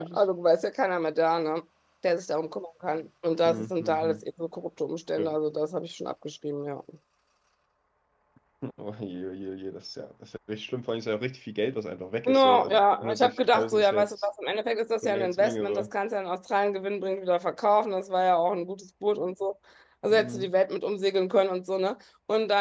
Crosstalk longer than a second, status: present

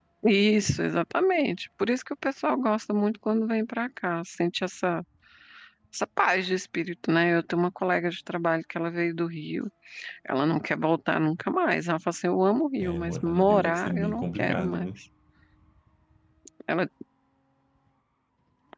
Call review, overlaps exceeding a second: present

